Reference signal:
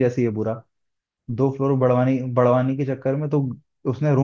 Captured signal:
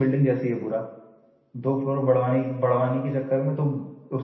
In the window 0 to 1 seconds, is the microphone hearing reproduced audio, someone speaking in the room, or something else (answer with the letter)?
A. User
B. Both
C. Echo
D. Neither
C